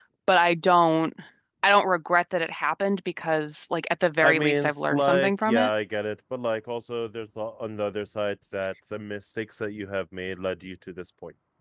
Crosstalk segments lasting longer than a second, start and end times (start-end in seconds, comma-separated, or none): 4.2-5.7